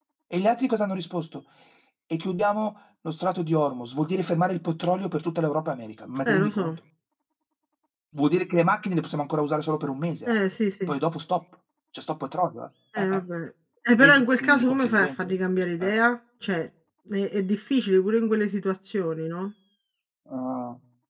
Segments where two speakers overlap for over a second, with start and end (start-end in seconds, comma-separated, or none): 14.0-15.3